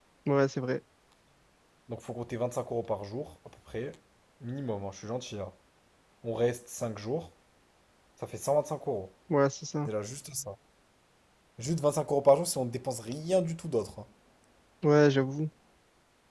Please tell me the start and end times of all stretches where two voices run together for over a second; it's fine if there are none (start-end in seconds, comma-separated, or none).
none